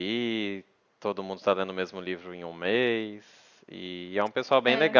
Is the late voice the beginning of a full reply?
No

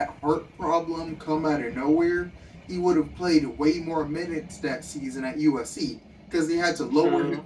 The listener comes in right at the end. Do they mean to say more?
No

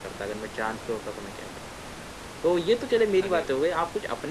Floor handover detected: No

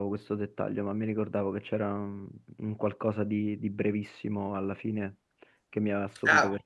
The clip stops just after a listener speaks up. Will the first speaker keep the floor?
No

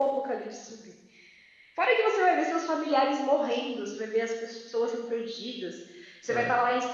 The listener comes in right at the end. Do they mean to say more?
No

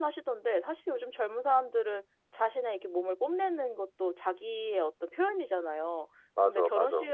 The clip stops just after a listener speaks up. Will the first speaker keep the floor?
Yes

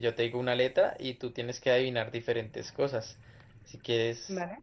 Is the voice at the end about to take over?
No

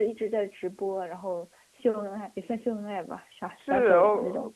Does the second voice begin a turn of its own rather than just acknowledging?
Yes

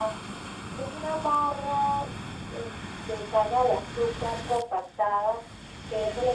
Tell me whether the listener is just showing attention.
Yes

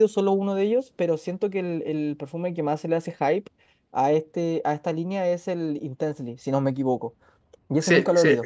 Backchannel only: No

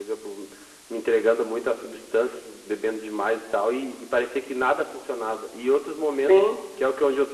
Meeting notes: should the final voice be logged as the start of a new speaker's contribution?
No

